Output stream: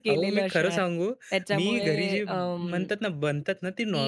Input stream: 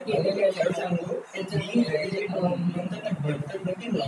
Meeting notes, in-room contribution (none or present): present